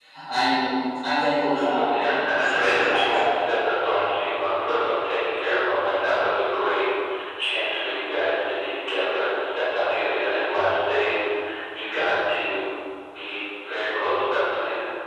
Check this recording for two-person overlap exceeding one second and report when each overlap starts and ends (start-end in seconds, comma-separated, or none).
1.5-3.4